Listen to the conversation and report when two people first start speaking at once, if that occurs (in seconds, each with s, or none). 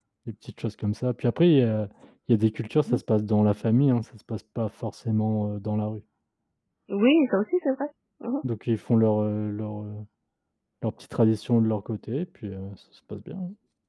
none